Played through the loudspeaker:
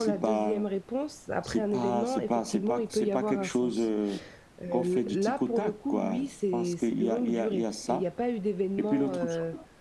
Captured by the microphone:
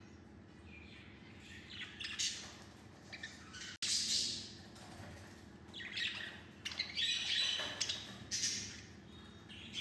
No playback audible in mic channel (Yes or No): Yes